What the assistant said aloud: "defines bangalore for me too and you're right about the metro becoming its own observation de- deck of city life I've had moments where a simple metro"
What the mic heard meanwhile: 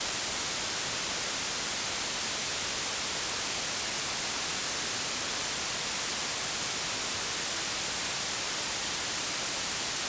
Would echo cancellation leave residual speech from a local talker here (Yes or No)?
No